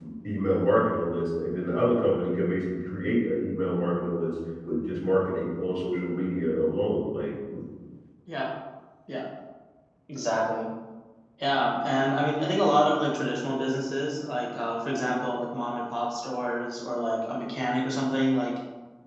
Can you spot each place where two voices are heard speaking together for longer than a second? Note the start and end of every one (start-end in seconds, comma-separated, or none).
none